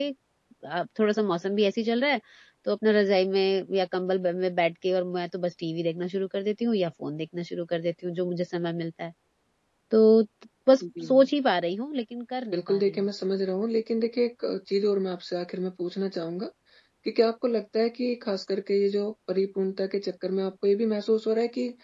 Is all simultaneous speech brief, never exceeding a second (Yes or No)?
Yes